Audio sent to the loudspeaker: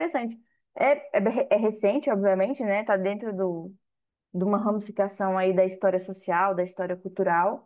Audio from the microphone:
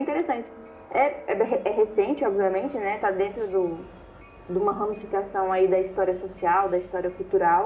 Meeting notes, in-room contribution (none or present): none